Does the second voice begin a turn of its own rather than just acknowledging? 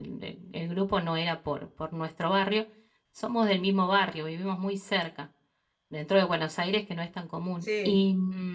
No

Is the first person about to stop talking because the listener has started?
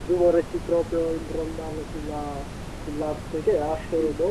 No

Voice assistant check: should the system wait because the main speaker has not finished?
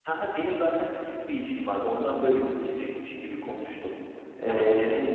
Yes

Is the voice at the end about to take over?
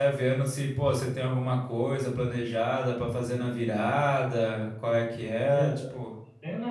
Yes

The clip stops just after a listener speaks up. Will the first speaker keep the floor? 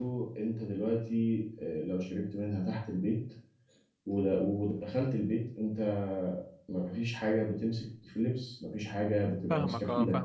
No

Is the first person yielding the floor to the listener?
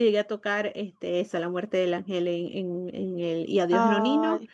No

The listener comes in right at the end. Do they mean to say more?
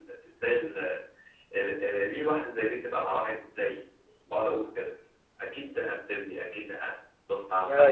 Yes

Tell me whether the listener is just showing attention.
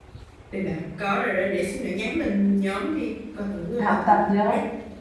No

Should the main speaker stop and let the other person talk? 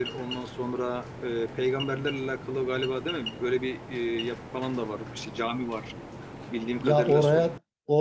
Yes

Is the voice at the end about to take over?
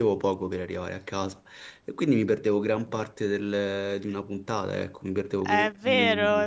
Yes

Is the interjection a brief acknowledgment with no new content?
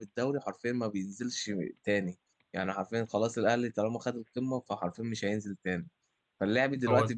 Yes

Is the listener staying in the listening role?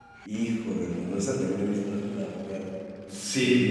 No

